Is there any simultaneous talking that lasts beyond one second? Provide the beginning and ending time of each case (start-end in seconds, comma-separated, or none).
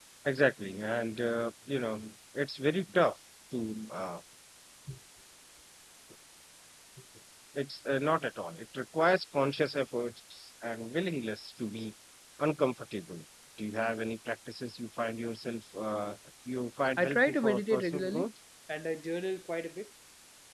17.0-18.3